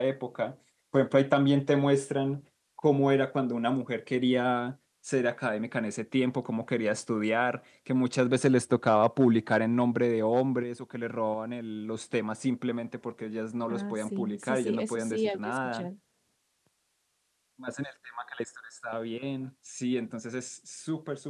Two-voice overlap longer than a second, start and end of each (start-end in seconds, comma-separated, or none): 13.7-15.9